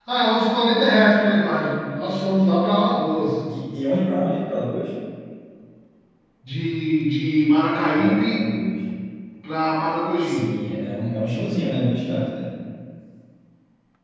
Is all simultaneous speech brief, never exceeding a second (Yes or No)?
Yes